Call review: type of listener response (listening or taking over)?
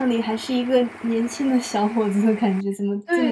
taking over